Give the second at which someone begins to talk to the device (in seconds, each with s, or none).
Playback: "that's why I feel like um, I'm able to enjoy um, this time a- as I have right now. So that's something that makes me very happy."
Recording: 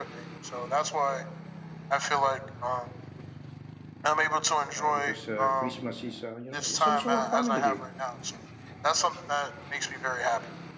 4.8 s